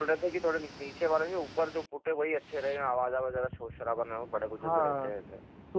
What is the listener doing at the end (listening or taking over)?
taking over